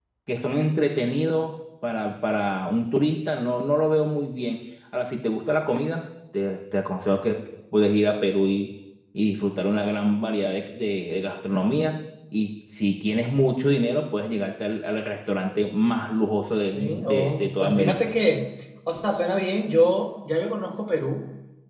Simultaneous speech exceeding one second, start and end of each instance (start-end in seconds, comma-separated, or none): 16.7-18.1